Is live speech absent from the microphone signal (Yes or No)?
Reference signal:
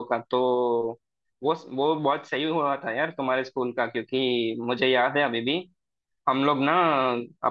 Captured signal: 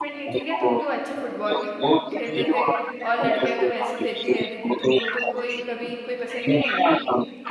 No